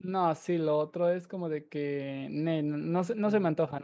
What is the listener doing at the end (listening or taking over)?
taking over